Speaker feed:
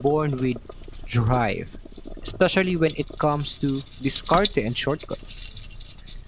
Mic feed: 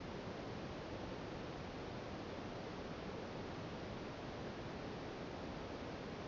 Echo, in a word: none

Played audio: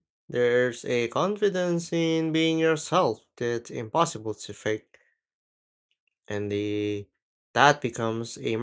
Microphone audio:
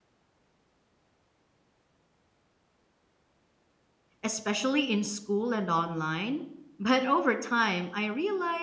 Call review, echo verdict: none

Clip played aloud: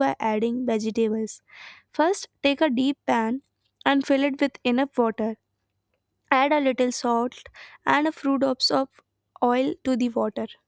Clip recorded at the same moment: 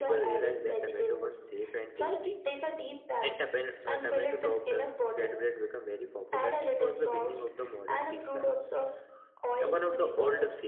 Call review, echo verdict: present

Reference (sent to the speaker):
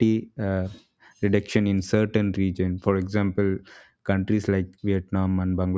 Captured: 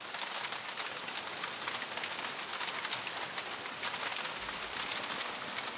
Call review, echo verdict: none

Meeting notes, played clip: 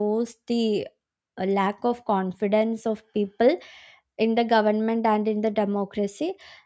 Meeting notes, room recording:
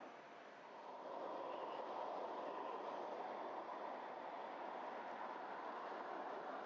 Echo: none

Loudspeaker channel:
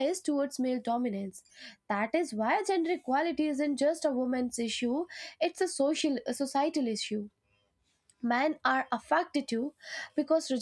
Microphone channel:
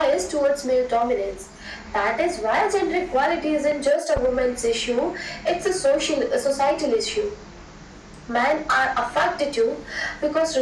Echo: present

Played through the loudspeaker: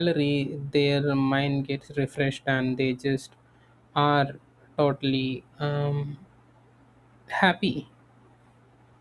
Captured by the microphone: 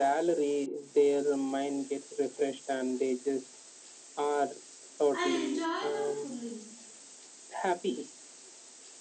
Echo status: present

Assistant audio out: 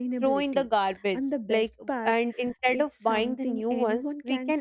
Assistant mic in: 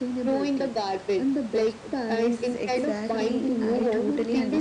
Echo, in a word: present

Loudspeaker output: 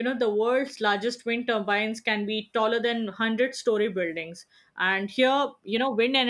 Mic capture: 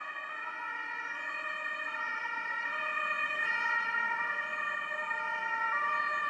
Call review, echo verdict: none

